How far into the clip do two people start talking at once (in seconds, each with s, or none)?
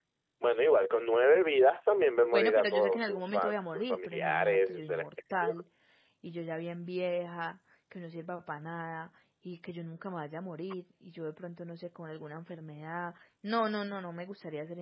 2.3 s